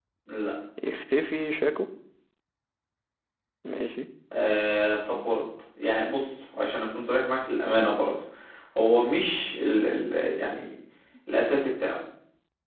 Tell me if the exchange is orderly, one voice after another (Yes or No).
Yes